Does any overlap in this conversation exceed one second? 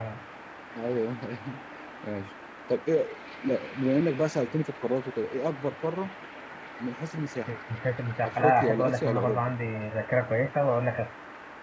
Yes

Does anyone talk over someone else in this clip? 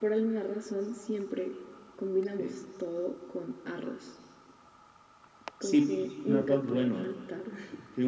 Yes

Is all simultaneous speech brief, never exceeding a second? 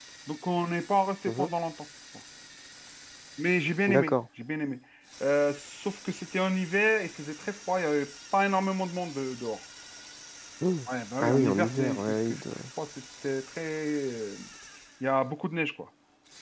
No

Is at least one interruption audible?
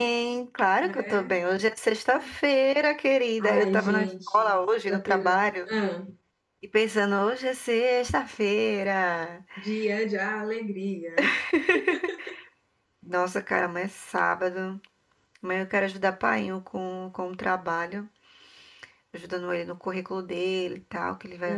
Yes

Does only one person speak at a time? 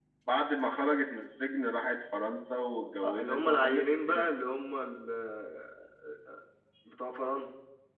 No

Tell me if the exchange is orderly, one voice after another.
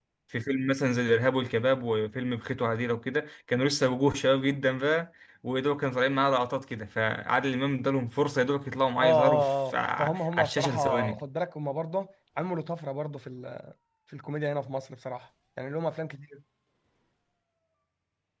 No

